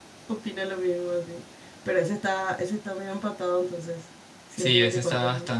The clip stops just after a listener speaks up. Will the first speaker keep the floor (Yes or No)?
No